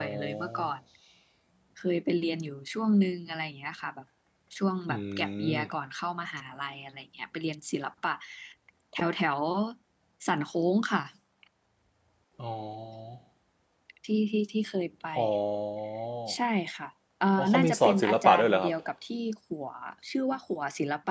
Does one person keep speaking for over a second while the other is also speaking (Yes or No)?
Yes